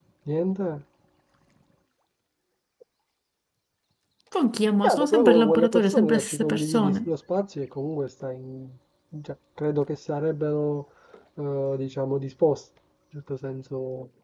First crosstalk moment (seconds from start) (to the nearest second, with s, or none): 5 s